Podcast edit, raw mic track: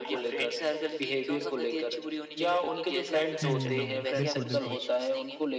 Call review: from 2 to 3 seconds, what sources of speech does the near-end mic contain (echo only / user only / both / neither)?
echo only